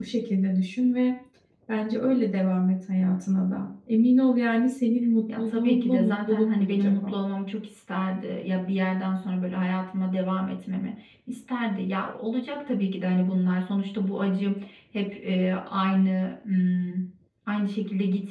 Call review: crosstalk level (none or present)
present